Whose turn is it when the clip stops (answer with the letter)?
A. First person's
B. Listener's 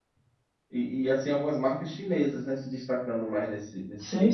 B